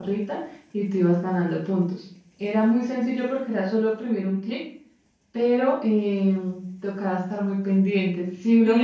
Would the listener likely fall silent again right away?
No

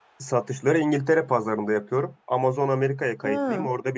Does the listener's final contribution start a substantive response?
No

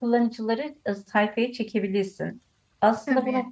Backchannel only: Yes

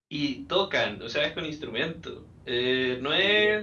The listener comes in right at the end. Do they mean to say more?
No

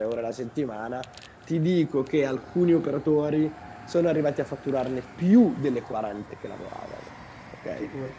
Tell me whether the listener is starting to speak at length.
Yes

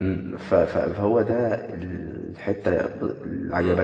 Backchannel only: No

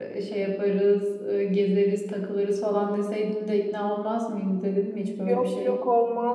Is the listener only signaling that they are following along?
No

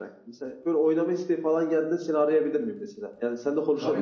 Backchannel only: No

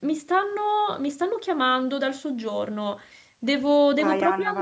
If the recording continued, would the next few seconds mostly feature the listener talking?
Yes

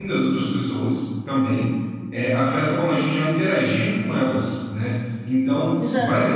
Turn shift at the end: No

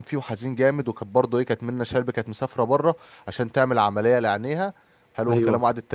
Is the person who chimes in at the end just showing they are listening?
Yes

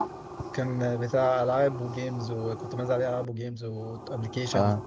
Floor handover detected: No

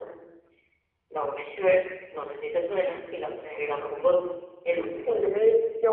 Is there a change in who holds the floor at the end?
Yes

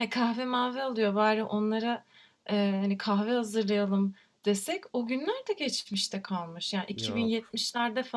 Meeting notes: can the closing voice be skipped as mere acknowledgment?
Yes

